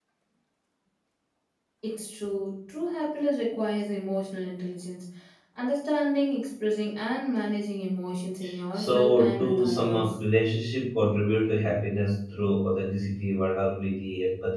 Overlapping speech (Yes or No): Yes